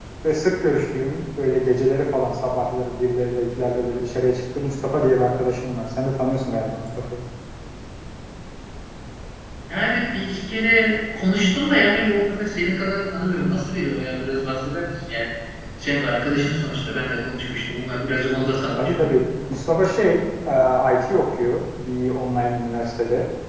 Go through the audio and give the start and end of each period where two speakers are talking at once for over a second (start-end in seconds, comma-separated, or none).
none